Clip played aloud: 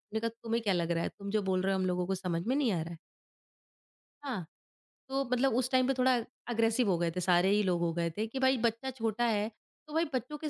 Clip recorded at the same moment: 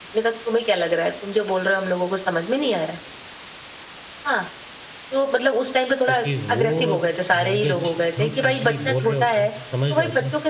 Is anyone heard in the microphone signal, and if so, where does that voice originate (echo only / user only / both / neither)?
both